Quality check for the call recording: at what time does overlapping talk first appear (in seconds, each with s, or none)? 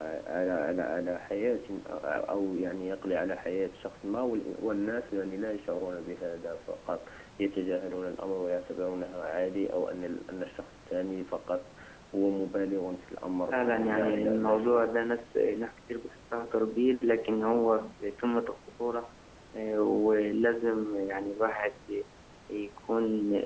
13.5 s